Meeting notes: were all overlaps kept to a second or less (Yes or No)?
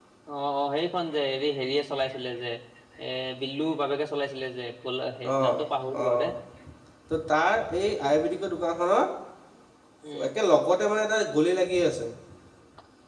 Yes